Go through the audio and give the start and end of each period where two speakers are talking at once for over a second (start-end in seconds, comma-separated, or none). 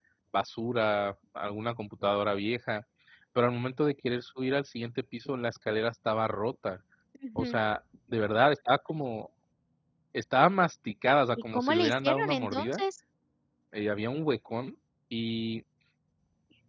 11.5-12.8